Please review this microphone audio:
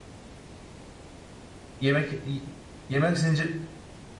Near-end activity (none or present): present